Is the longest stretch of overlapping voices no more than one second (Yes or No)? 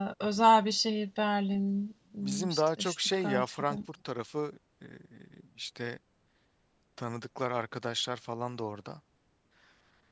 No